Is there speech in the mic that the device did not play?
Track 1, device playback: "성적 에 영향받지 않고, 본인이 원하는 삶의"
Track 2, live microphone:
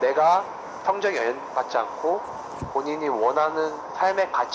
No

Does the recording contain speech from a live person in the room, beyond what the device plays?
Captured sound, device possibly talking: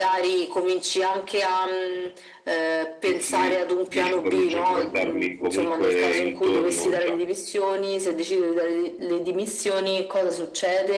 Yes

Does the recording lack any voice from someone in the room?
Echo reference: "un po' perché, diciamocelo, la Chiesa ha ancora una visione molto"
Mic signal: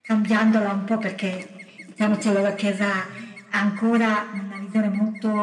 Yes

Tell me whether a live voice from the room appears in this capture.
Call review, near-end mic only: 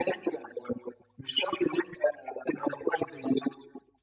No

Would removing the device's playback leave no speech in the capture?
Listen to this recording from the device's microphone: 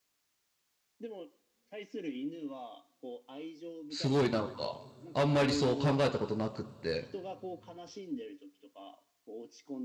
No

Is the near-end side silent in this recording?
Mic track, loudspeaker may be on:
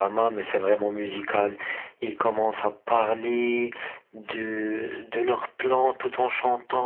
Yes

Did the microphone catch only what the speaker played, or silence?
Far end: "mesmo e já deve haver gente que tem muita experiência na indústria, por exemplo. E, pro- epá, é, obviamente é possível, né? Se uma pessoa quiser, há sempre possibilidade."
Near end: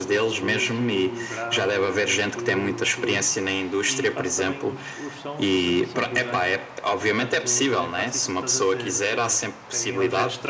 No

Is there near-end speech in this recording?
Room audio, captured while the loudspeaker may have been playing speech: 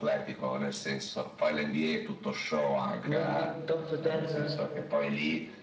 Yes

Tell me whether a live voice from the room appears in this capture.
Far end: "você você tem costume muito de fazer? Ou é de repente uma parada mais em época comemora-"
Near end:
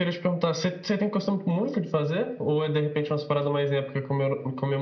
No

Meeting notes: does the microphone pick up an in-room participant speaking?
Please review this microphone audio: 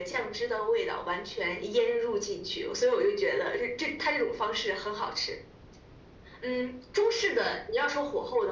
No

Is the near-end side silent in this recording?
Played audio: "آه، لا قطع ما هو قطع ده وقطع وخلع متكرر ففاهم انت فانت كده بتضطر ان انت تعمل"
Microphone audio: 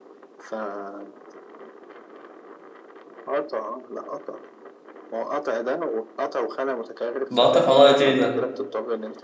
No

